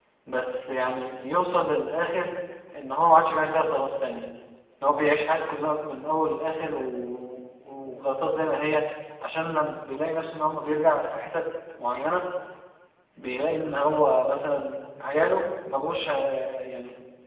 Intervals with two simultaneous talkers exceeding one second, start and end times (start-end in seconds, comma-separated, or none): none